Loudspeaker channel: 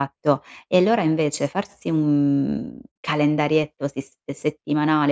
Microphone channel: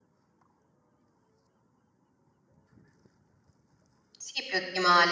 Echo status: none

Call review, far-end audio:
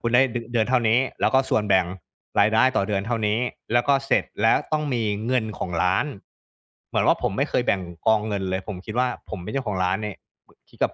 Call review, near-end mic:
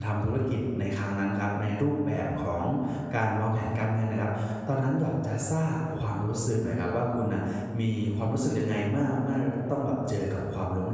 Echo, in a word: none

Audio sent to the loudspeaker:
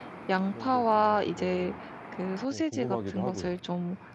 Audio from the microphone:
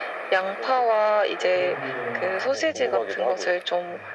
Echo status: present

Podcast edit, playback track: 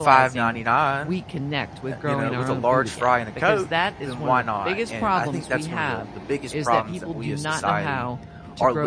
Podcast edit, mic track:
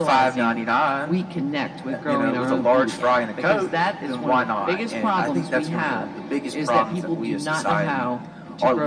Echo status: present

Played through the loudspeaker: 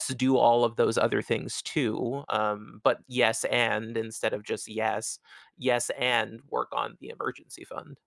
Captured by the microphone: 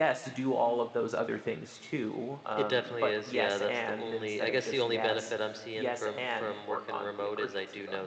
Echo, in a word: present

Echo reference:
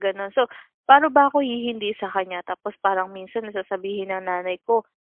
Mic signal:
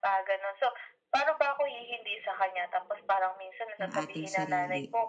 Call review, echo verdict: present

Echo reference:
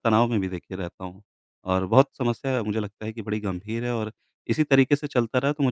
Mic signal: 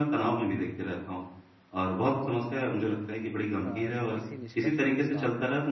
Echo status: present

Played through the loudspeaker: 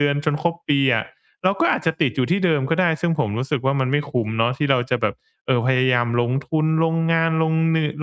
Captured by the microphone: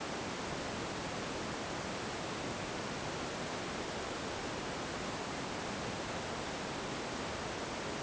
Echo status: none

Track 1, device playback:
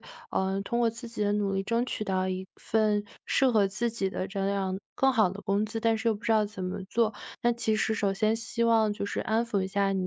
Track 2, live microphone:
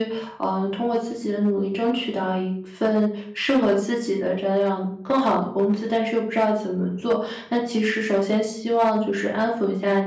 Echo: present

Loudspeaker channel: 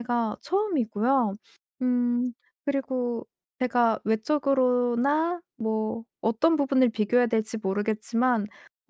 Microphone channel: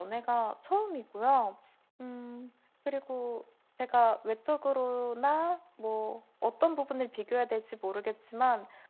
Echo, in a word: present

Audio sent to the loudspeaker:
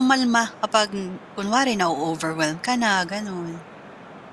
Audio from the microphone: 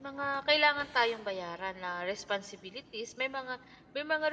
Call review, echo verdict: none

